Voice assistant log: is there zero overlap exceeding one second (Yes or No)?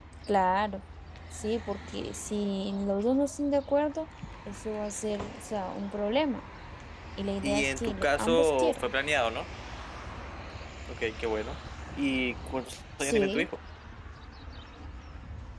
No